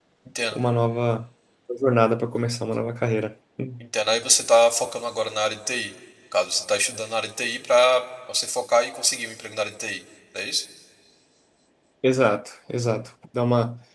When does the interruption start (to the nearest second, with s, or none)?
none